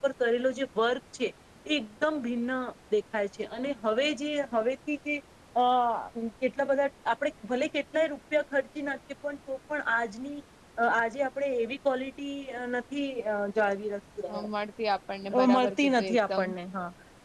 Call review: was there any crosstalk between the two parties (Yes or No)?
Yes